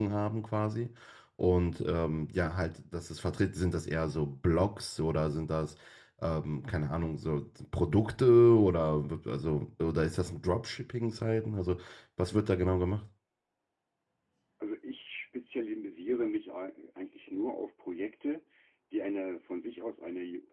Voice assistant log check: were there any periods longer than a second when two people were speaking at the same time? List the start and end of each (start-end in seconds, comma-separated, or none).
none